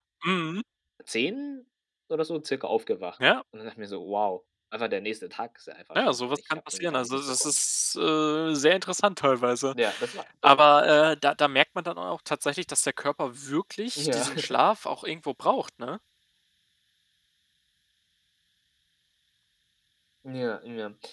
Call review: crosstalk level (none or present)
present